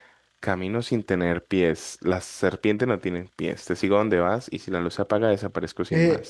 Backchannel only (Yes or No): No